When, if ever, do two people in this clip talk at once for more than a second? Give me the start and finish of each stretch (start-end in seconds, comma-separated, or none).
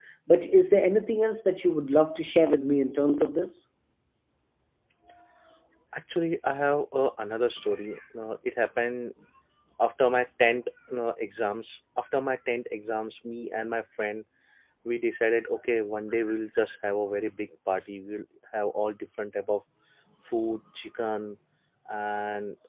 none